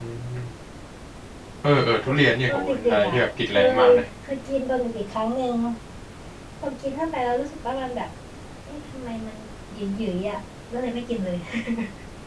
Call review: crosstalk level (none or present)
present